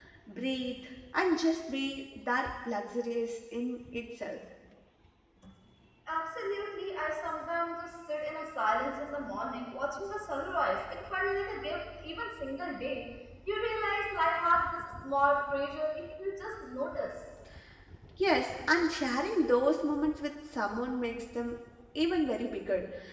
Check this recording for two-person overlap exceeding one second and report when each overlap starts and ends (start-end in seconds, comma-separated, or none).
none